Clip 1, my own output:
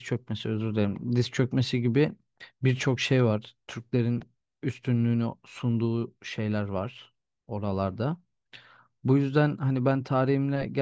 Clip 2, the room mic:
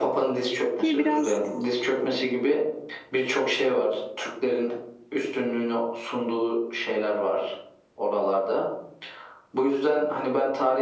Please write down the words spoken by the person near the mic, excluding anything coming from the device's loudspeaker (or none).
Peki biraz